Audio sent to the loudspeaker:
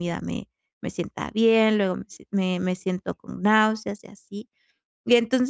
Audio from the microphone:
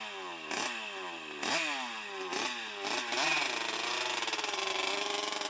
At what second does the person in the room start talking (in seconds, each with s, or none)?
none